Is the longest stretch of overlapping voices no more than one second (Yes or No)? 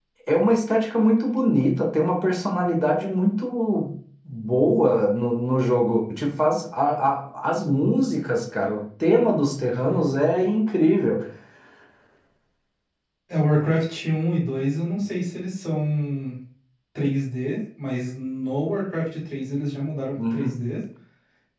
Yes